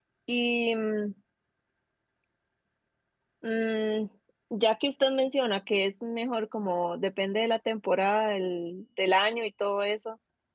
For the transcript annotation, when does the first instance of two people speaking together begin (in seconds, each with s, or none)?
none